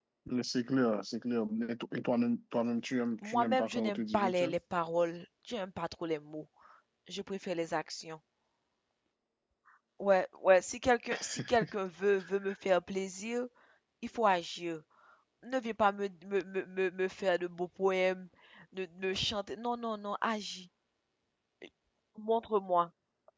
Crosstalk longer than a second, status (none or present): present